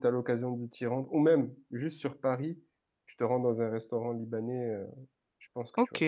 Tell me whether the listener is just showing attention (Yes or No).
No